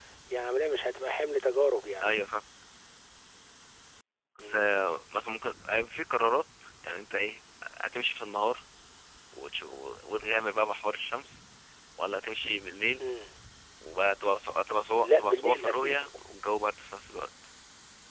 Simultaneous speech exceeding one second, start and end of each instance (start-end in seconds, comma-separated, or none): 15.0-16.2